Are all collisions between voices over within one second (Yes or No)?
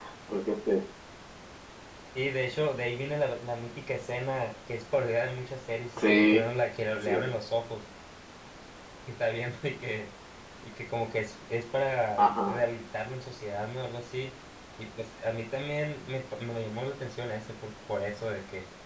Yes